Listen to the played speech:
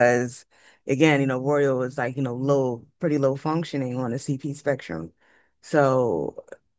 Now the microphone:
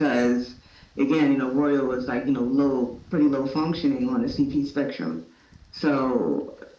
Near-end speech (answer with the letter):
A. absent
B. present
A